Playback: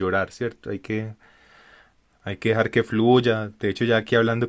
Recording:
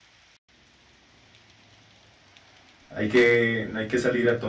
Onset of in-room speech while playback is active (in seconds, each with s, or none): 2.9 s